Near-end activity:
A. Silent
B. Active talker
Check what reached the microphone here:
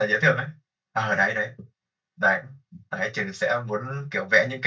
A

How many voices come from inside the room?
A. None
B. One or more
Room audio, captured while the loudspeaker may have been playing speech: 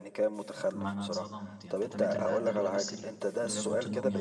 B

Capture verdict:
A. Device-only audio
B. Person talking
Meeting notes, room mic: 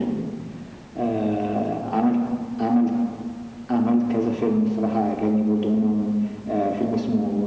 A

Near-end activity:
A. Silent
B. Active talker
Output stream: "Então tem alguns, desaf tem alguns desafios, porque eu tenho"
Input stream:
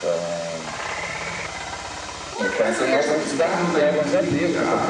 B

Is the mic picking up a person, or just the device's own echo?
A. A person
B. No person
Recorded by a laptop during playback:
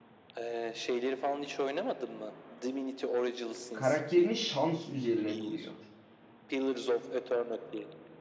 A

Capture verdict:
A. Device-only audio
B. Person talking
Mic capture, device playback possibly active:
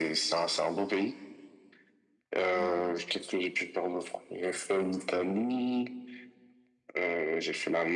B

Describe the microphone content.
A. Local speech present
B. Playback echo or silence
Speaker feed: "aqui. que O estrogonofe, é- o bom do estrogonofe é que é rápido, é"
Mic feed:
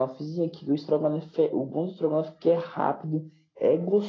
B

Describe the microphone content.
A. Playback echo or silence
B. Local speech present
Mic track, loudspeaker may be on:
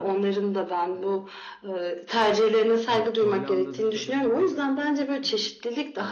B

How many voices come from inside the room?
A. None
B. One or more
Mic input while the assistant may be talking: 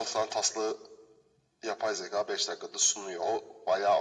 A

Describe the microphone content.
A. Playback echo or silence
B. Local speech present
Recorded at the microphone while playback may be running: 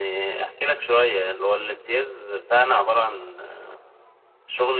A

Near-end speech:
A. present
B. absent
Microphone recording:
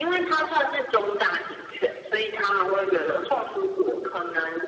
B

